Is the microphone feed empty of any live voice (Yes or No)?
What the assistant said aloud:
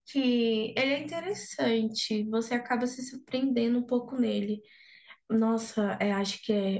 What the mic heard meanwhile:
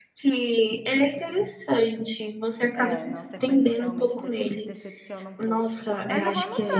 No